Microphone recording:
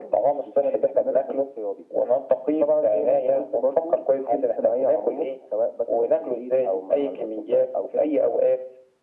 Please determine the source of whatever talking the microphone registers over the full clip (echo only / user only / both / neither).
echo only